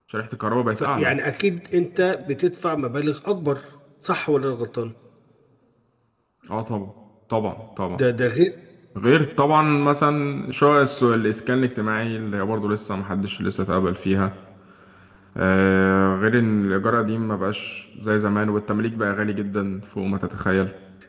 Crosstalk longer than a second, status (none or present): none